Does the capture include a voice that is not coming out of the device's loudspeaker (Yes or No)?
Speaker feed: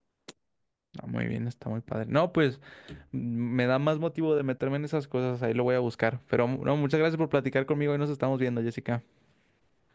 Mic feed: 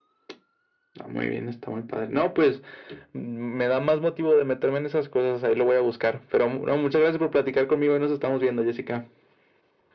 No